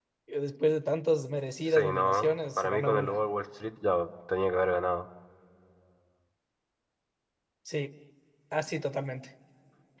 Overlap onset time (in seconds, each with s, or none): 1.7 s